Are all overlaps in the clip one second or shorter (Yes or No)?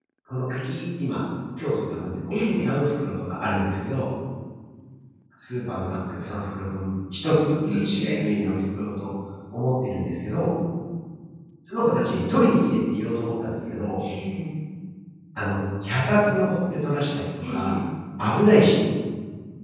Yes